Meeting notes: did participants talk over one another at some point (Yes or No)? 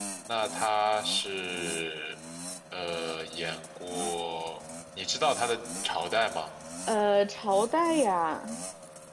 No